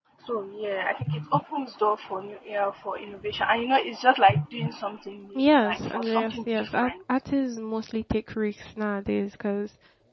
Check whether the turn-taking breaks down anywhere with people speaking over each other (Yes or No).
Yes